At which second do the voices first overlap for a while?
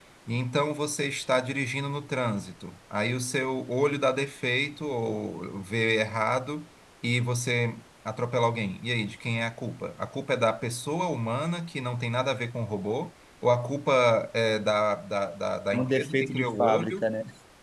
15.7 s

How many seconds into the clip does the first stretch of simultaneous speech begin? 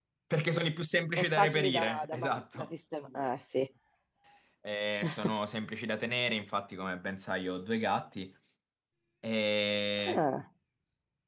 1.2 s

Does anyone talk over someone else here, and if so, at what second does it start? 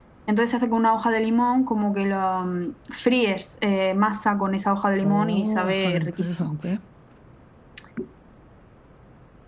5.0 s

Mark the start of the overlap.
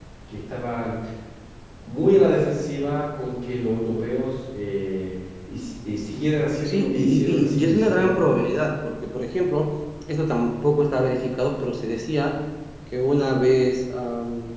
6.7 s

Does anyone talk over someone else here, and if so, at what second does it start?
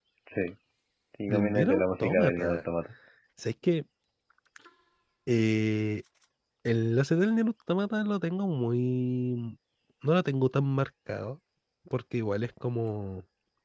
1.3 s

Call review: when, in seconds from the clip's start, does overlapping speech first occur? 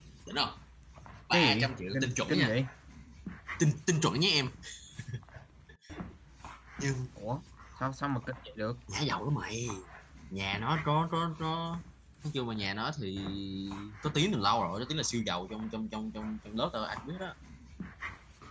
1.3 s

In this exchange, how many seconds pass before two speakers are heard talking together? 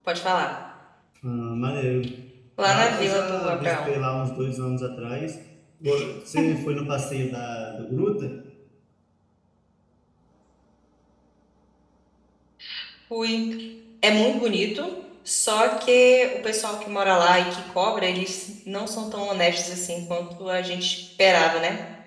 2.6 s

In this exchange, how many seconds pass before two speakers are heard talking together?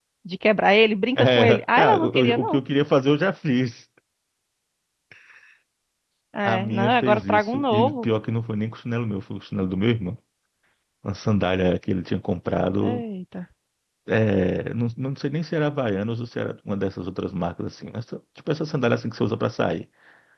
1.2 s

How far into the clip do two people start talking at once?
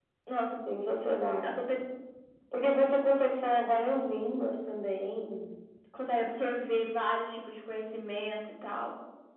none

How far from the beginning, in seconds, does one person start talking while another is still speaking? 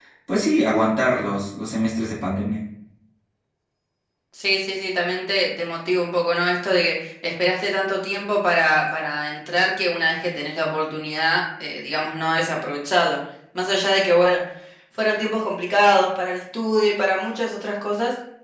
none

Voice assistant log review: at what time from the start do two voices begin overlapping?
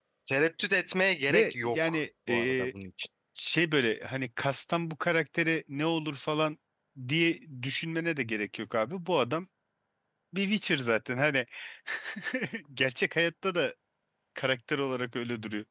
1.3 s

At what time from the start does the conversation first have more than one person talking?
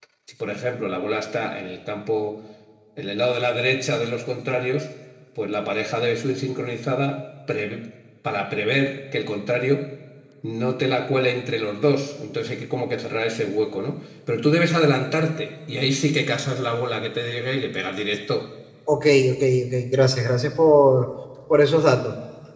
none

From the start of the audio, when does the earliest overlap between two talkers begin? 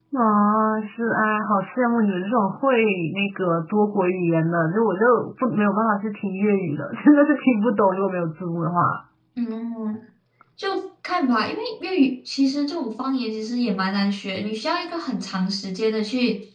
none

